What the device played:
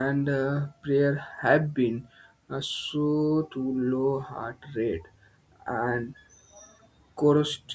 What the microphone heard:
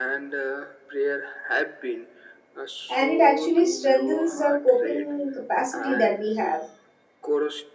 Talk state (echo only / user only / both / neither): both